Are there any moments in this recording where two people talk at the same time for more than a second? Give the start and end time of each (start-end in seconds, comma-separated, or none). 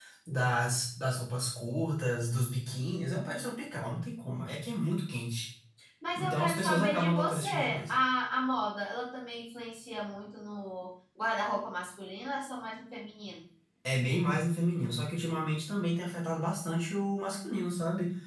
6.2-7.9